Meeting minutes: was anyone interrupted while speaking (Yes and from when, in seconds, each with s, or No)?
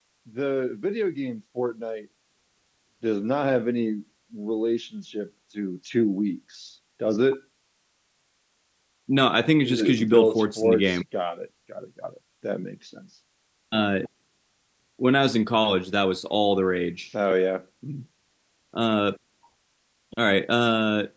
Yes, from 9.7 s